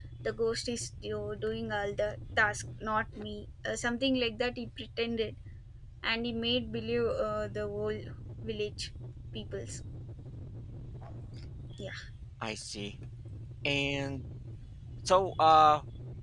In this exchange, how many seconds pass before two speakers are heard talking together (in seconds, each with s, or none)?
none